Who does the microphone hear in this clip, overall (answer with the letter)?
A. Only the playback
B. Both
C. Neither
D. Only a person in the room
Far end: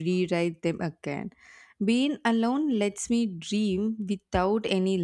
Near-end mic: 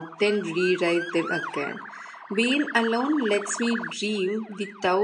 A